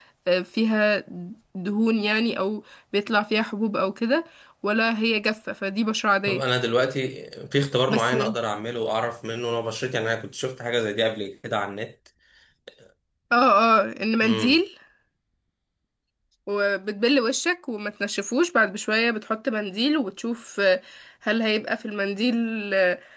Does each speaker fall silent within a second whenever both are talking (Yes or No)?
Yes